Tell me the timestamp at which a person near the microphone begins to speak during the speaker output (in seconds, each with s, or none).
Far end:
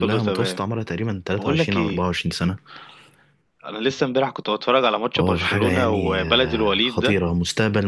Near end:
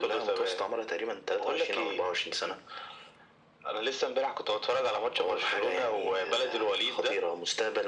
none